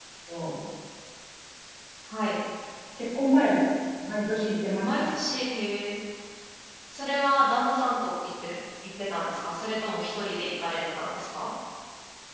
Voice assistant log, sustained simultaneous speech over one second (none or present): none